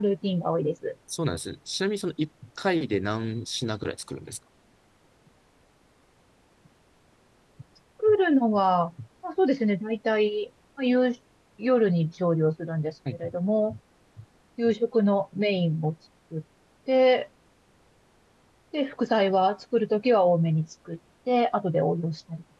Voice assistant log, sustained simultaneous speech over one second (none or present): none